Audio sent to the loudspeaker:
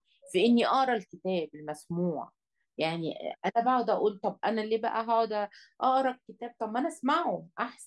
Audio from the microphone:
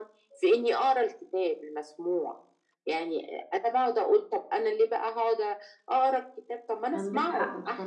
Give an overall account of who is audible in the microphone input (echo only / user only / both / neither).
both